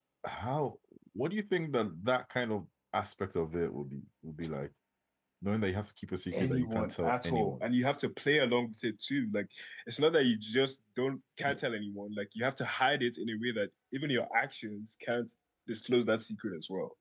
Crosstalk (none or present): present